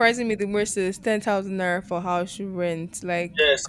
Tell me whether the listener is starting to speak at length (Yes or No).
Yes